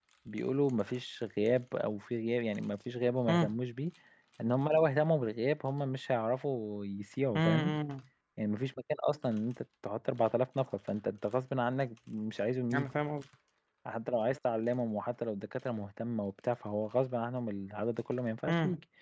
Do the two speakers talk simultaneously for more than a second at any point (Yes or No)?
No